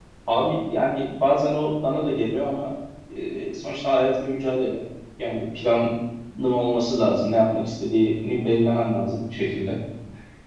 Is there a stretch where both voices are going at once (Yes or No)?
No